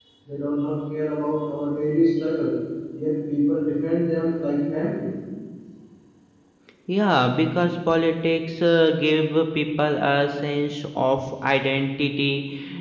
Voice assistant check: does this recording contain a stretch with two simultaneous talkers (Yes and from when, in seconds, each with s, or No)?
No